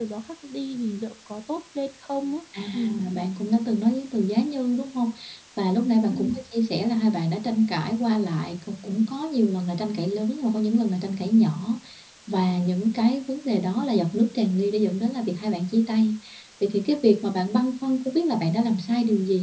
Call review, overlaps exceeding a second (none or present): none